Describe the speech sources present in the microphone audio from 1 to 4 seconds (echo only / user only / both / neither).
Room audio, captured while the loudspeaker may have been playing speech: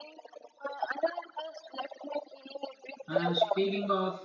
both